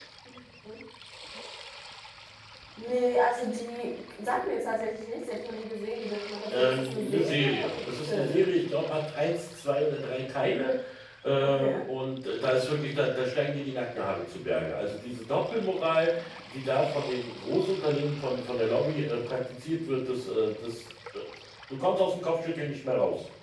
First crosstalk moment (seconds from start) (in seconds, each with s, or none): 6.5 s